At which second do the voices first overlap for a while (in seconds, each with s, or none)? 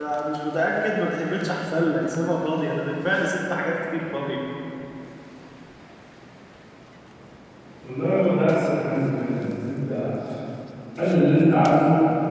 none